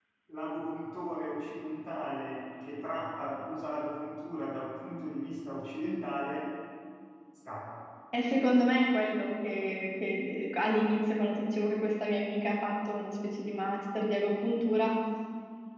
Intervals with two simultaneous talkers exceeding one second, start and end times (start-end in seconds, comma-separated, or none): none